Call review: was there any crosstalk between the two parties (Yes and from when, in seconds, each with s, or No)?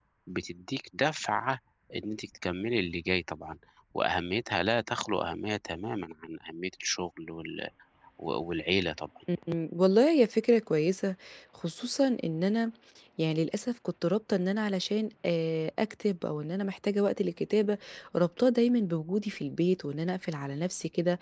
No